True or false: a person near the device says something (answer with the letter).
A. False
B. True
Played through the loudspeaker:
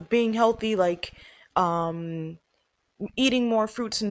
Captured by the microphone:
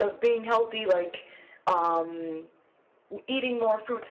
A